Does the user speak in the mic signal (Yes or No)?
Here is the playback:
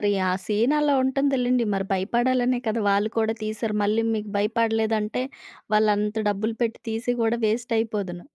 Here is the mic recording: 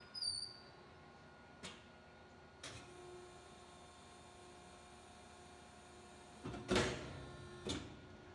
No